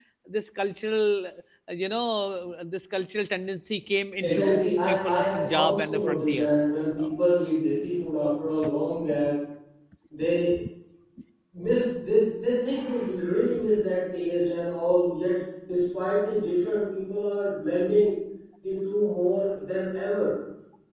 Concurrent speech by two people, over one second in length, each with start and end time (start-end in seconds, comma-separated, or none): 4.2-6.5